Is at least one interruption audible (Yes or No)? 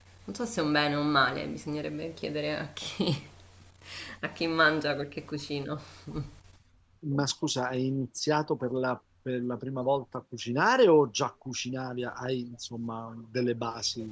No